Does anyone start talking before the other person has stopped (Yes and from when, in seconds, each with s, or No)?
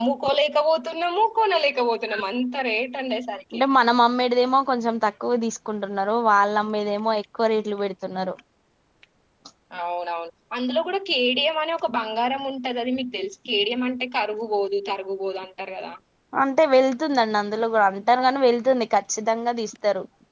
No